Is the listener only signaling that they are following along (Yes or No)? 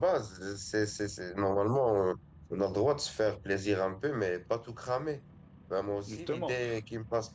Yes